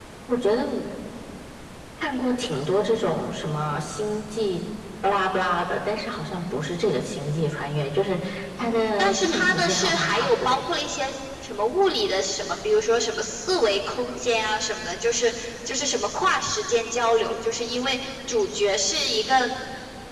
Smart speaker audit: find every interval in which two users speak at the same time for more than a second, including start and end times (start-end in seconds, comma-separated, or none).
8.6-10.6